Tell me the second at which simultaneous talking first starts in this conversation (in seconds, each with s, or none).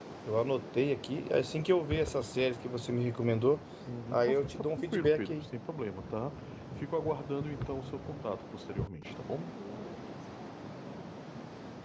4.1 s